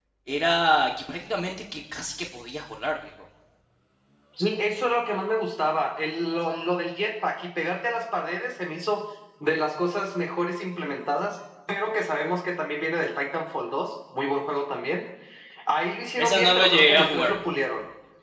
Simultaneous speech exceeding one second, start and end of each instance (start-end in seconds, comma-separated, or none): 16.2-17.4